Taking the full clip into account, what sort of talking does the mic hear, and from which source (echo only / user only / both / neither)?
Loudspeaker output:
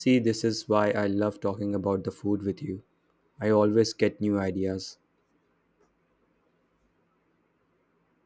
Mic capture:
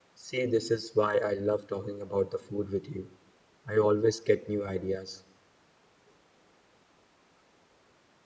echo only